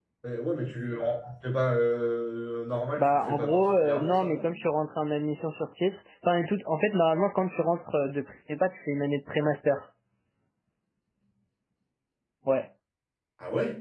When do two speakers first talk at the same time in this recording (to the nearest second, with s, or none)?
3 s